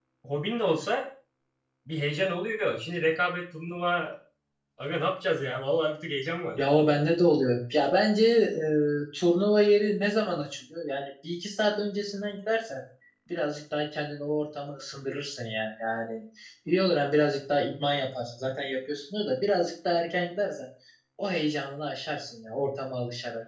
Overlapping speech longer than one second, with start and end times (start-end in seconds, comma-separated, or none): none